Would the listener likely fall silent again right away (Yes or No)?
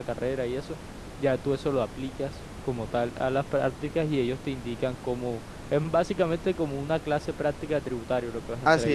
No